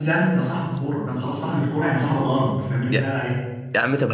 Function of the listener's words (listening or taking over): taking over